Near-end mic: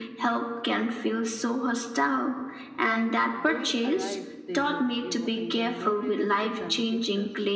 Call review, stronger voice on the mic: echo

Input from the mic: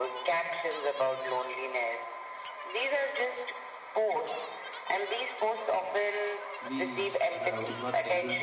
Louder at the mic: echo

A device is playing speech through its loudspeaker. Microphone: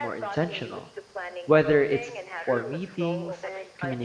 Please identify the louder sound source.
user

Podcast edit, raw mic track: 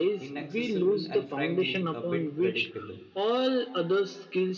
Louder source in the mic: echo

